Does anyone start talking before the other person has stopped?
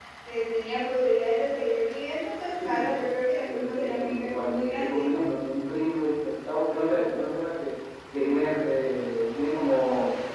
Yes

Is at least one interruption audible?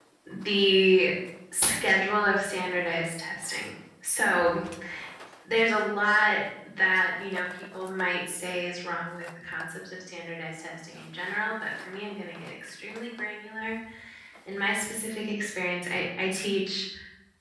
No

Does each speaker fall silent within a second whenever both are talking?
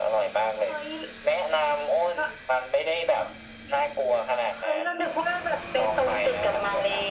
No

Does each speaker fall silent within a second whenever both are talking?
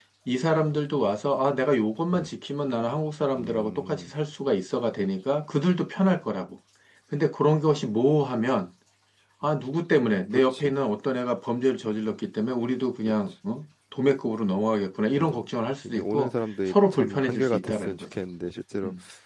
No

